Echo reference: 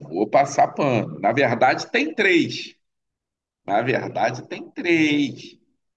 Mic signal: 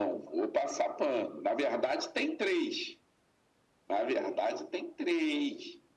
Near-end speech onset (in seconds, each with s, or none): none